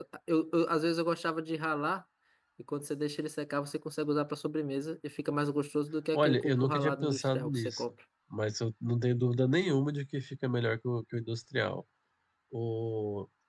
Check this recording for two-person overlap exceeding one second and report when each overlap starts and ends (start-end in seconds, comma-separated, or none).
6.1-7.9